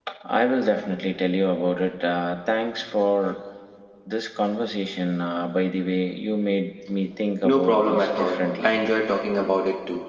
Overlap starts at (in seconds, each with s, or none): 7.4 s